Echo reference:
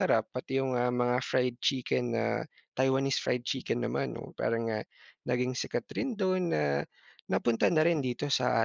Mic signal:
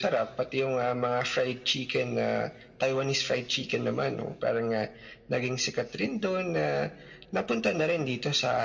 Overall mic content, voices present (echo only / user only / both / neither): echo only